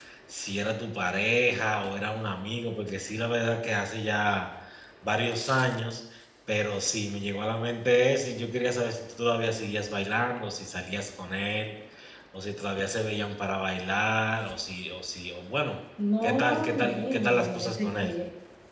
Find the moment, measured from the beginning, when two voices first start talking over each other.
16.2 s

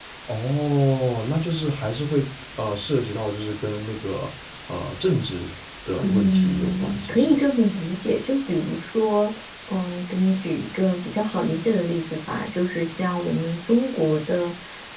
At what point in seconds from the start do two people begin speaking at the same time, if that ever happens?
6.0 s

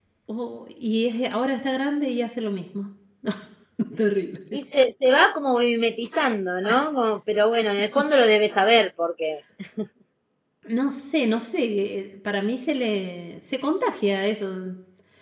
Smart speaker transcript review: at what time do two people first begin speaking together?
none

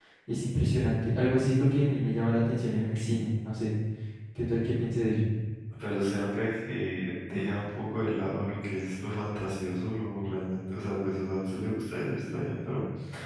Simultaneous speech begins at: none

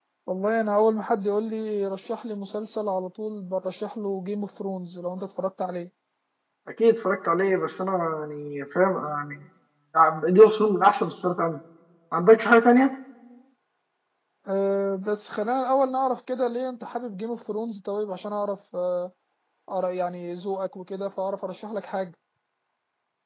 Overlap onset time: none

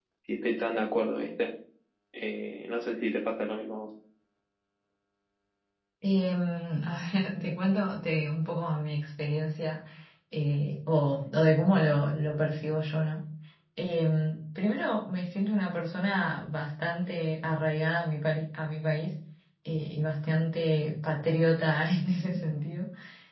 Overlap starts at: none

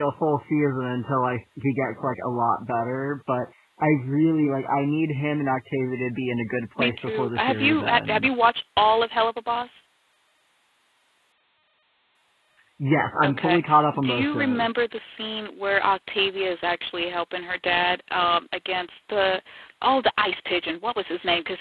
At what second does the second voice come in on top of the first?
6.8 s

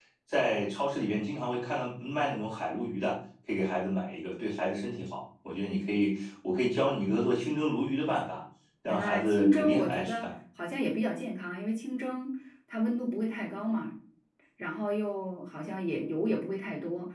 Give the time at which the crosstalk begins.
8.9 s

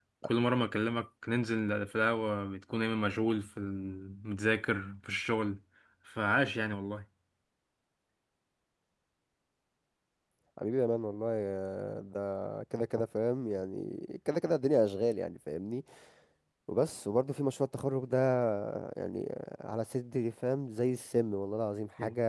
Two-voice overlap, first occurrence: none

